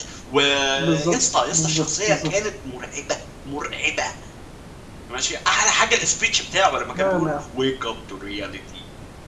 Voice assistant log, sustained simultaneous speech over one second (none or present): present